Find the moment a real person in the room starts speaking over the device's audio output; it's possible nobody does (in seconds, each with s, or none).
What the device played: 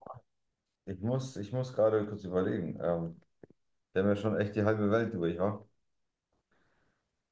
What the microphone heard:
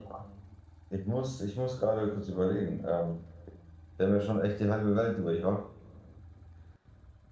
none